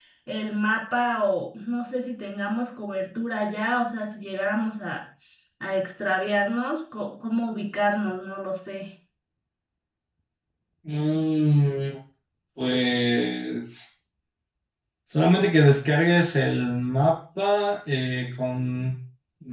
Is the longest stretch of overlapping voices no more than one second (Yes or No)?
Yes